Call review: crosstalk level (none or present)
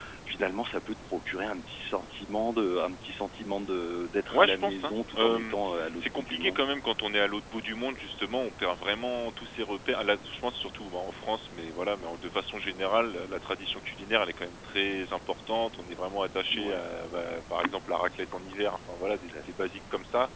present